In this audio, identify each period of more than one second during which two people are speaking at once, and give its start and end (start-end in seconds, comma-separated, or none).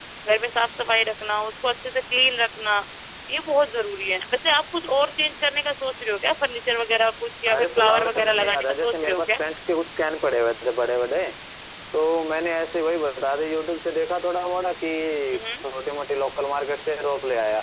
7.5-9.3